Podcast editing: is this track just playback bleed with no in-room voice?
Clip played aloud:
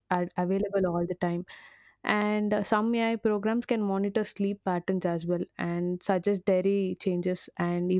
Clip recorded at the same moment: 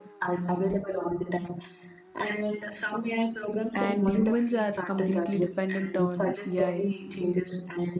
No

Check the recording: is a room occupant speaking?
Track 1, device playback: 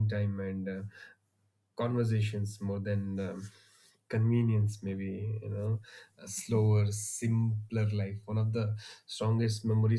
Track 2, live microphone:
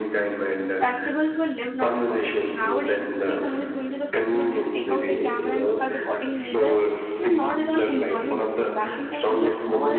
Yes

